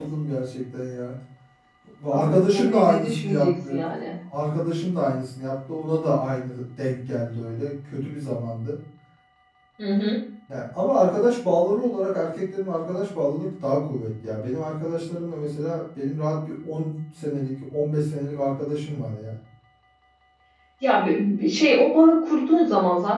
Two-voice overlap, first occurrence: 2.1 s

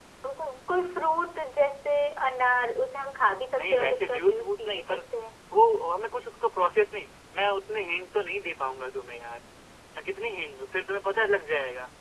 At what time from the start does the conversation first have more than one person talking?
3.5 s

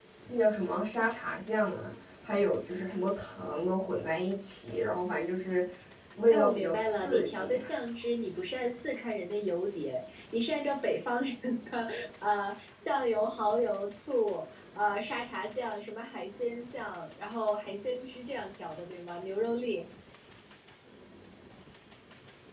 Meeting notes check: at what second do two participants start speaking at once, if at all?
6.3 s

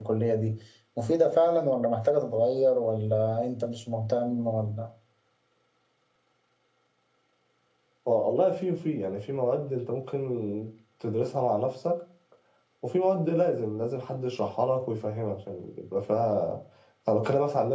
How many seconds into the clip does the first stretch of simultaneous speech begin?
none

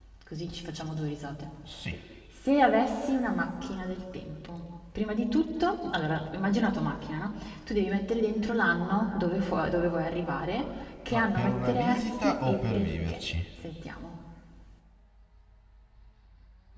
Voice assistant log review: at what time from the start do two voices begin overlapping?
11.1 s

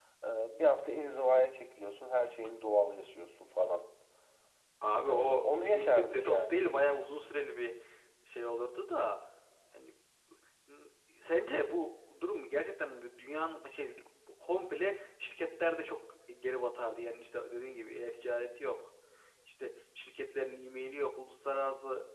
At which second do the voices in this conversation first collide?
5.1 s

